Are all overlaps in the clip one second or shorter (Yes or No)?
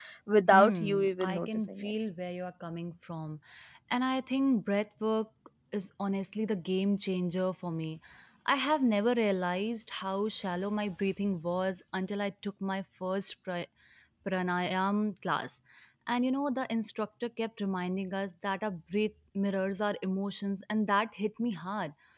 No